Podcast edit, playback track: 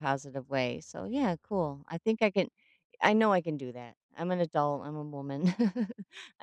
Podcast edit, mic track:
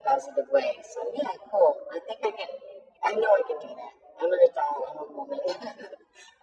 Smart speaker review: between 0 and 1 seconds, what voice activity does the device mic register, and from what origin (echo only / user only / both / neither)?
echo only